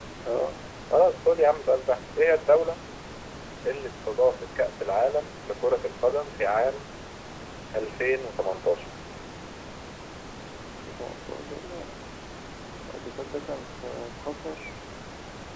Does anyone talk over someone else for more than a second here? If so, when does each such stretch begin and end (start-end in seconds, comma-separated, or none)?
none